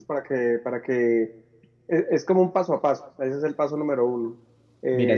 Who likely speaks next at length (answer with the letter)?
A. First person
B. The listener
A